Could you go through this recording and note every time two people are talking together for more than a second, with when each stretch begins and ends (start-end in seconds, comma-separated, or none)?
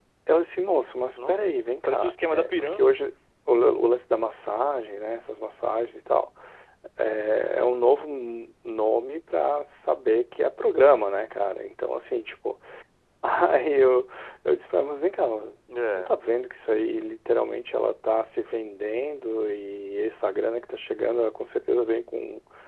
1.2-2.9